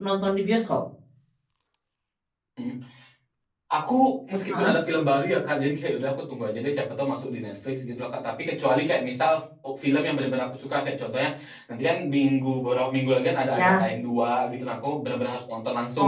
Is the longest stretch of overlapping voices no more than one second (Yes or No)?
Yes